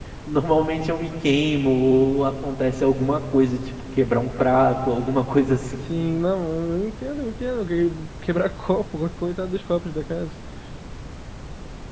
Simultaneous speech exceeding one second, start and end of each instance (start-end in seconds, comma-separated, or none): none